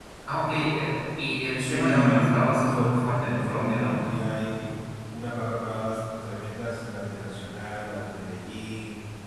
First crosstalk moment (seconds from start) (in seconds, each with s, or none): 1.6 s